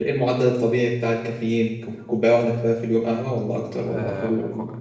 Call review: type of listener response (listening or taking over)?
taking over